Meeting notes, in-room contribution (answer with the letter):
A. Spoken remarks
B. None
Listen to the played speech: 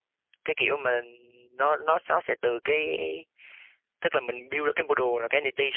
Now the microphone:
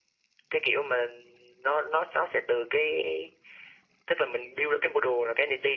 B